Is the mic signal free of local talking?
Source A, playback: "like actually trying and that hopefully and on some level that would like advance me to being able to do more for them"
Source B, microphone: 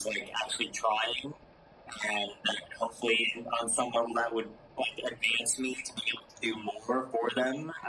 Yes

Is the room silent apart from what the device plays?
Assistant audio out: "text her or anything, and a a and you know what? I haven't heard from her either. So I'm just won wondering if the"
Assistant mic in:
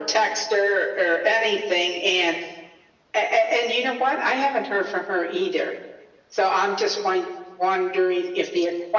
Yes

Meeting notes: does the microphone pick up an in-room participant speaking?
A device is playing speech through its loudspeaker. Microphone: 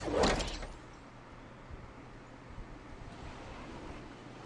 No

